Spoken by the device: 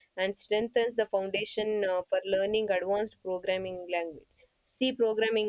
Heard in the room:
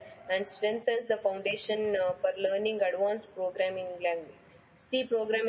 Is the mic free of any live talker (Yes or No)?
Yes